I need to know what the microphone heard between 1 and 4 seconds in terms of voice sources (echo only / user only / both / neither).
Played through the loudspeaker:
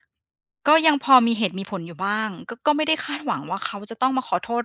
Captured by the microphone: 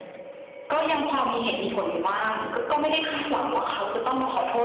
echo only